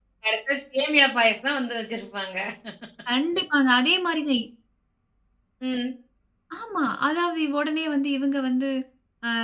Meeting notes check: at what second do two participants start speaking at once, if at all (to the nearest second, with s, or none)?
none